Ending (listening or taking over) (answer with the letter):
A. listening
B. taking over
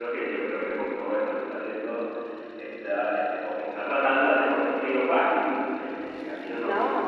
A